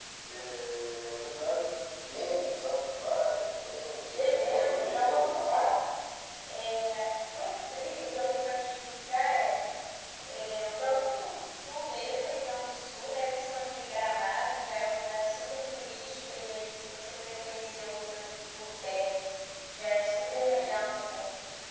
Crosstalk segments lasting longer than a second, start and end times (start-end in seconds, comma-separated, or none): 4.1-5.7